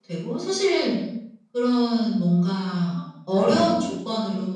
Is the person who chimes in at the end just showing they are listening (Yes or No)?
Yes